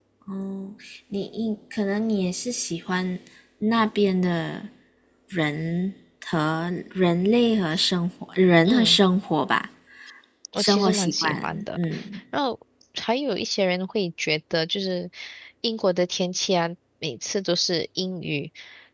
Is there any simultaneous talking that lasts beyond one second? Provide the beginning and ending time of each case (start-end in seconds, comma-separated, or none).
10.6-11.8